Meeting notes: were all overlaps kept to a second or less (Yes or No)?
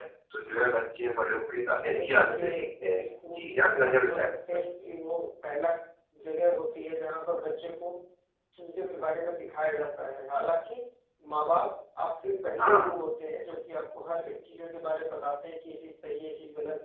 No